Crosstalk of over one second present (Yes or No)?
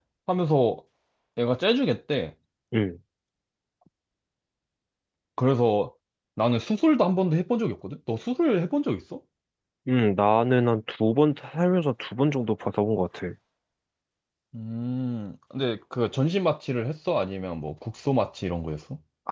No